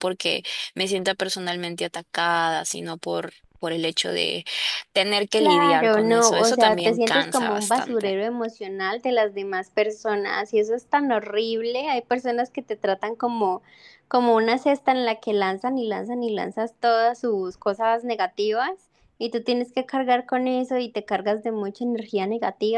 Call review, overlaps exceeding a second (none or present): present